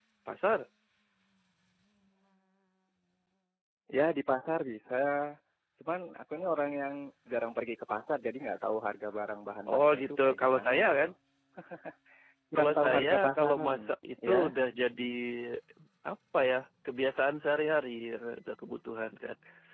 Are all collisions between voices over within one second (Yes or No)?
No